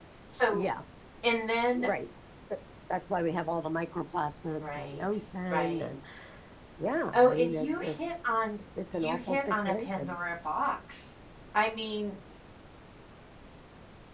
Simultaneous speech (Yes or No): Yes